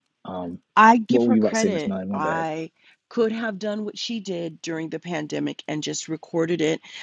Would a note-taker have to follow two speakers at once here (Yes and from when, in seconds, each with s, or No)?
Yes, from 1.1 s